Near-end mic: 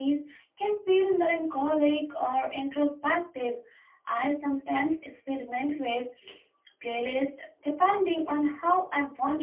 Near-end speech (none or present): none